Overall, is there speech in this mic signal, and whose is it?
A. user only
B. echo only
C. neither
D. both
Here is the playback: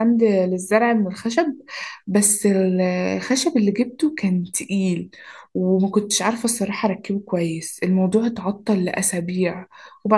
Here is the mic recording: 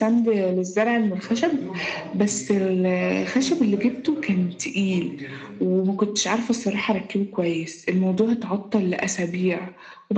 D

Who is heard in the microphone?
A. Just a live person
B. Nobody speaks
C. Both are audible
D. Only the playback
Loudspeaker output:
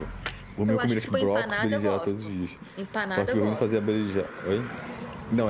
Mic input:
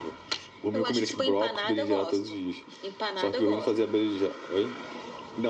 D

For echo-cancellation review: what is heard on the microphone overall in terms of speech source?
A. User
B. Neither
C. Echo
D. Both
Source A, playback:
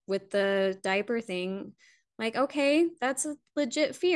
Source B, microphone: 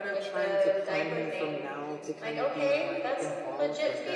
D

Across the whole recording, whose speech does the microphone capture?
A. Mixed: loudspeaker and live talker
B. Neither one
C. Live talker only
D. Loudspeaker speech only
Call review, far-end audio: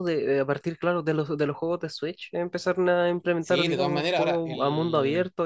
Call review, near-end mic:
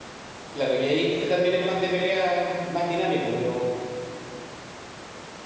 C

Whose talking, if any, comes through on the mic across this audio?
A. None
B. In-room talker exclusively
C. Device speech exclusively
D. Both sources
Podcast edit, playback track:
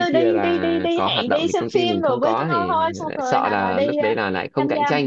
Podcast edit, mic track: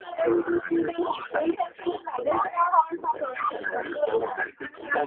C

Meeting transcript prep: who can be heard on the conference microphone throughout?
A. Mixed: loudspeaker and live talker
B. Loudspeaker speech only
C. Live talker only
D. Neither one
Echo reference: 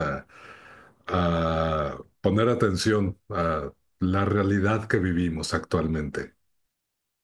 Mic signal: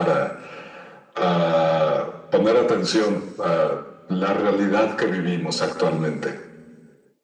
B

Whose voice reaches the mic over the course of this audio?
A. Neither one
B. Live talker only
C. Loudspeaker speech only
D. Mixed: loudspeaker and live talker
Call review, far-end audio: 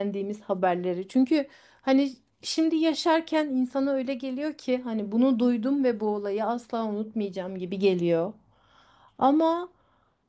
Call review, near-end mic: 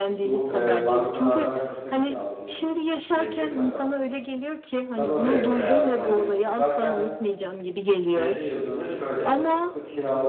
D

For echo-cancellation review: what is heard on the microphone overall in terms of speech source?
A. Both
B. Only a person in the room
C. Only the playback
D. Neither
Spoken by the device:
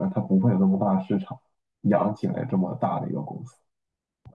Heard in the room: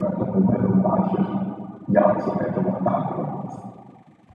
C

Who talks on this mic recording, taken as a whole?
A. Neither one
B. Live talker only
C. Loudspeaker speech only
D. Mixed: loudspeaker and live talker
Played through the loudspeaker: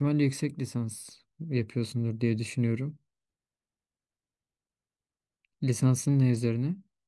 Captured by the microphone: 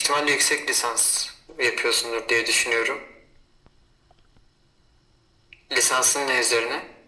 C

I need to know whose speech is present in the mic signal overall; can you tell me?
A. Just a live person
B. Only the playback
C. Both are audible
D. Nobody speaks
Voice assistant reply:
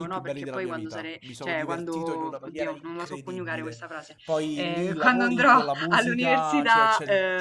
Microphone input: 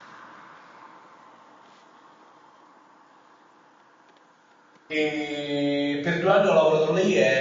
A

